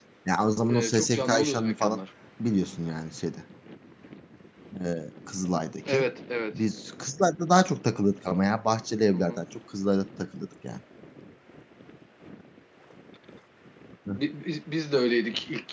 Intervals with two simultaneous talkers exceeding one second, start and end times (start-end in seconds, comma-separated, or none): 0.7-2.0